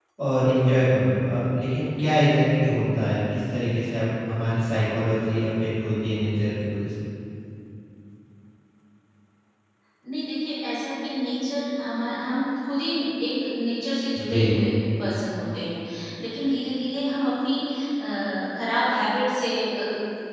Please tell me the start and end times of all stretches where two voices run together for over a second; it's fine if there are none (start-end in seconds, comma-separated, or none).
none